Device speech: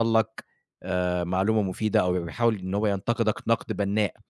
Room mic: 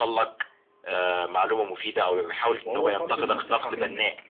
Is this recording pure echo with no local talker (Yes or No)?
No